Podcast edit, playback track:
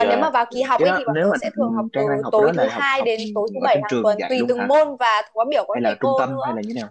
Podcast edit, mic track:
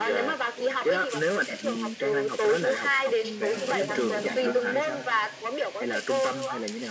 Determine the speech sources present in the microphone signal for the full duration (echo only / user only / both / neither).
both